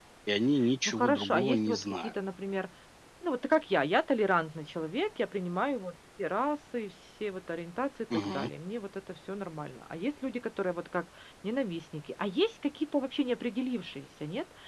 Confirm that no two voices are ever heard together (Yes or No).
No